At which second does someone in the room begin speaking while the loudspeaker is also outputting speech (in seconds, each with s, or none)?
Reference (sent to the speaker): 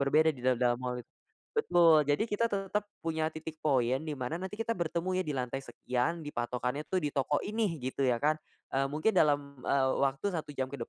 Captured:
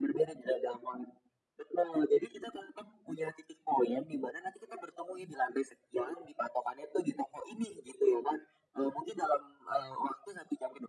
none